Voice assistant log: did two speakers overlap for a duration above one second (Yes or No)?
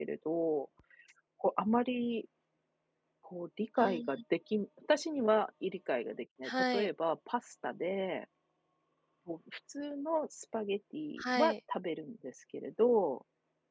No